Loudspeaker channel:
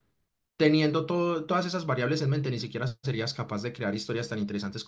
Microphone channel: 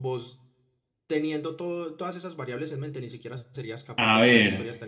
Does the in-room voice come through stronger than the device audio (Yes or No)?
Yes